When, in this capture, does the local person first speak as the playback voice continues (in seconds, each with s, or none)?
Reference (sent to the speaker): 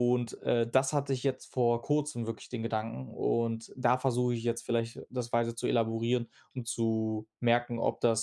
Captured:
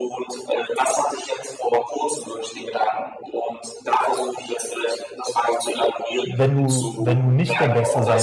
6.2 s